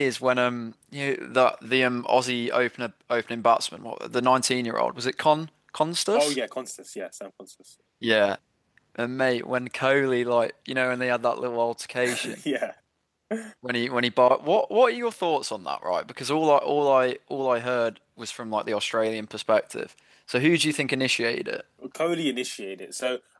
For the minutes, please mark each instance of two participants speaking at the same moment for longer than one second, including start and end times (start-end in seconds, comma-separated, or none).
none